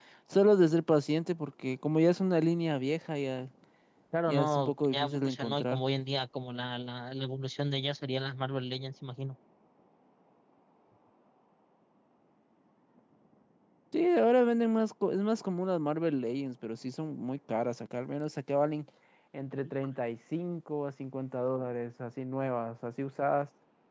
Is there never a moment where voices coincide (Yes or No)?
No